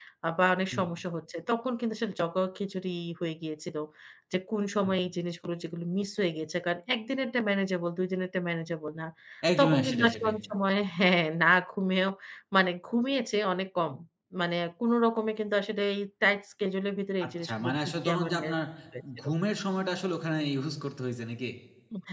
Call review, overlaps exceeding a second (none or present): present